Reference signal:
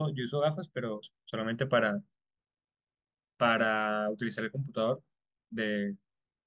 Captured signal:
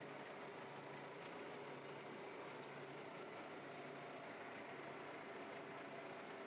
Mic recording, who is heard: neither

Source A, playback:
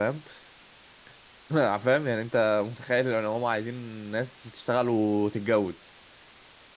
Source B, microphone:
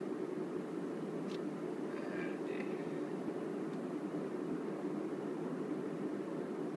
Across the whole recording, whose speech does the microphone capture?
neither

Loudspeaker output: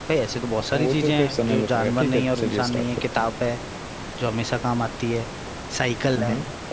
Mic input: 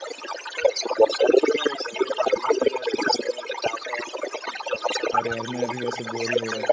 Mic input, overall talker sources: both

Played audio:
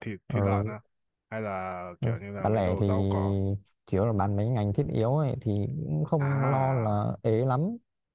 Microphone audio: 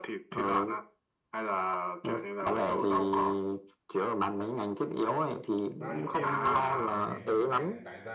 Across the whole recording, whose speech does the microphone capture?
both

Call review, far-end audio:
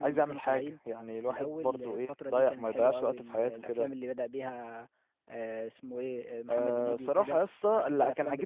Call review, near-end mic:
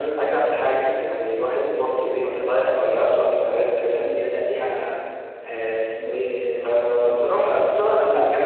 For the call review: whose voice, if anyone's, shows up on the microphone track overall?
both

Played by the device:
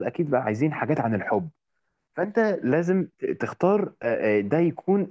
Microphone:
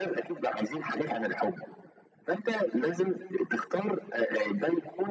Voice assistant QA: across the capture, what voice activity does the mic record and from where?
echo only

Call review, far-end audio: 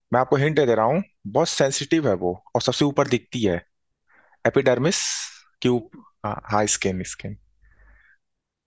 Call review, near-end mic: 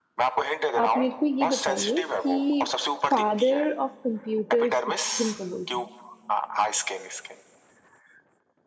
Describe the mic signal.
both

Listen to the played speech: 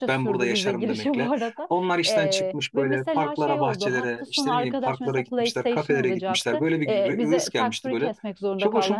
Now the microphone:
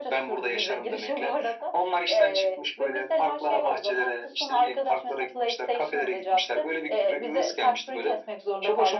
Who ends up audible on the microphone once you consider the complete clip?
echo only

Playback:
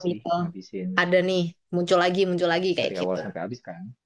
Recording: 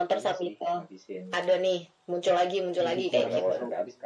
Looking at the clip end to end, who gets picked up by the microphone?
both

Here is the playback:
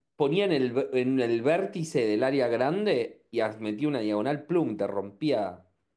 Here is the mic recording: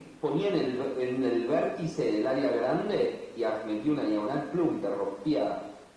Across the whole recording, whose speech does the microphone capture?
echo only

